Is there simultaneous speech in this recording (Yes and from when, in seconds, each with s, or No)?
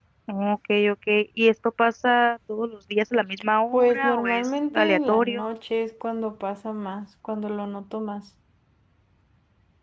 Yes, from 3.7 s